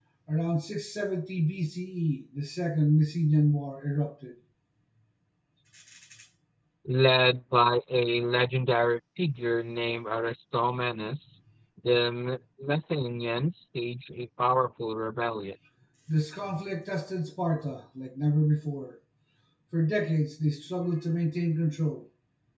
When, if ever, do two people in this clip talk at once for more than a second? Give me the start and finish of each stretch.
none

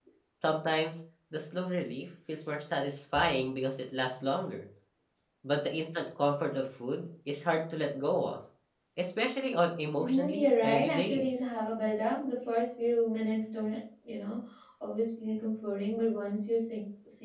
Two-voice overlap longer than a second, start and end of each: 10.0-11.4

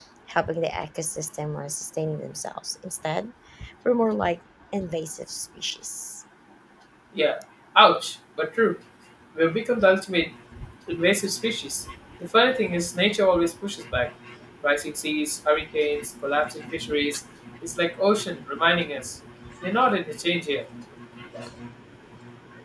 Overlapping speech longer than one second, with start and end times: none

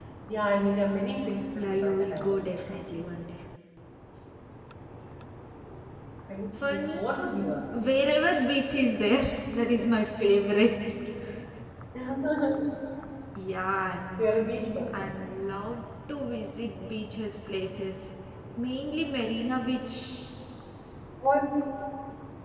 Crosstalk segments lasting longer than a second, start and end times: 1.6-2.8

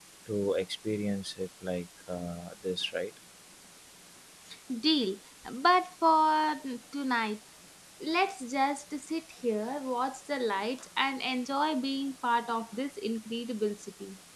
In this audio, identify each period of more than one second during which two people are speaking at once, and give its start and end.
none

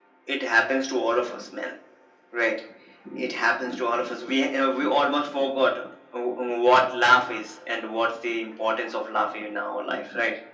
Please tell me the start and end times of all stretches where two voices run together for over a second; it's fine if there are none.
none

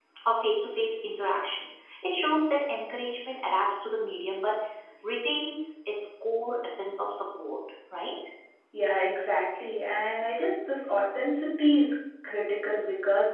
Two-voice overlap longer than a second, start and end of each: none

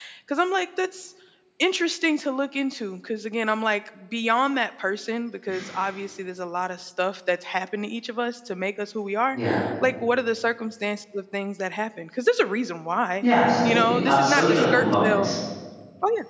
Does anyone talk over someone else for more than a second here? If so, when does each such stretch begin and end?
13.6-15.3

